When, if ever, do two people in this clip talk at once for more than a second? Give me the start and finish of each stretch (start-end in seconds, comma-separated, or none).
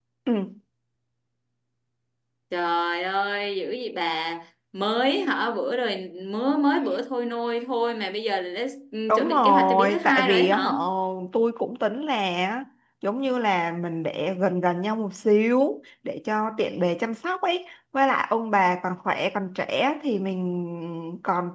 9.1-10.7